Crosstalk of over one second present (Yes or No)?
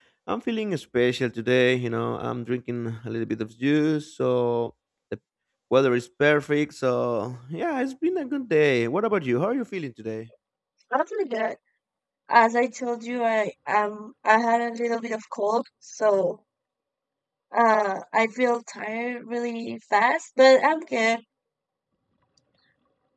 No